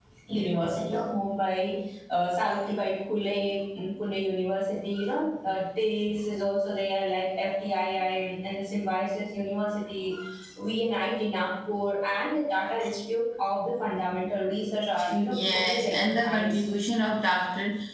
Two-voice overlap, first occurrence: 15.0 s

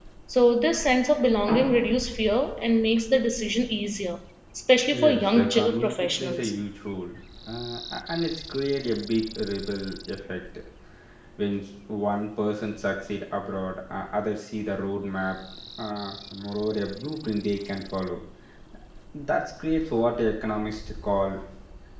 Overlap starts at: 4.9 s

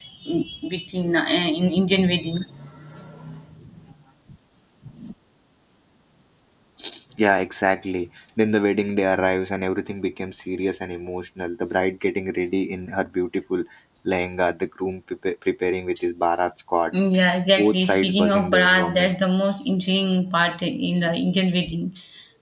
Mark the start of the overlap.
17.5 s

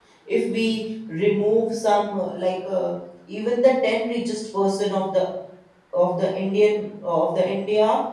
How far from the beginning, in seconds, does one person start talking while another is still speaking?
none

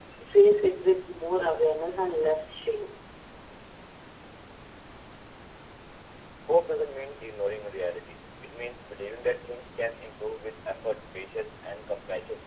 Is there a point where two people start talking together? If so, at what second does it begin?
none

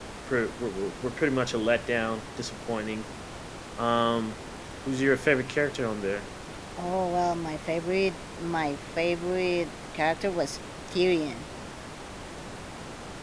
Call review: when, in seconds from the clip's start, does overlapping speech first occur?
none

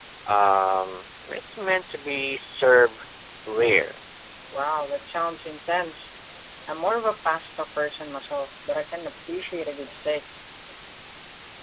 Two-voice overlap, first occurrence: none

